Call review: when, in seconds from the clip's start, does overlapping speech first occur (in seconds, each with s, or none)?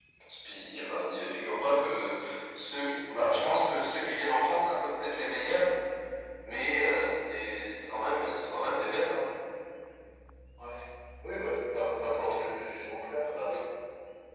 none